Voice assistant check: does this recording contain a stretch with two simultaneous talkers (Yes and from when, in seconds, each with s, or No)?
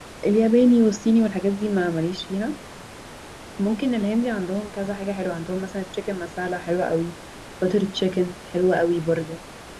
No